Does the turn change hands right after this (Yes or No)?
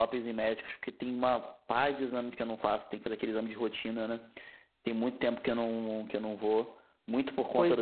No